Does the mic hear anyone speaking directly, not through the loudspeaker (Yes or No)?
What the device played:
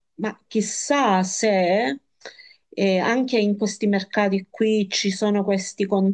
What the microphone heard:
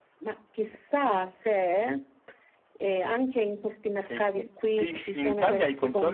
Yes